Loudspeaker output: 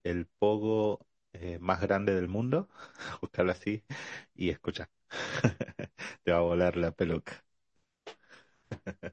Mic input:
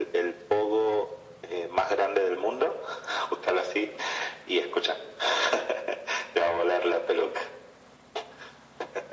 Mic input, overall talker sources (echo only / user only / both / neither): echo only